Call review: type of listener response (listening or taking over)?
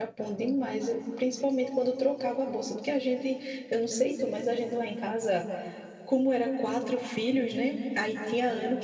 listening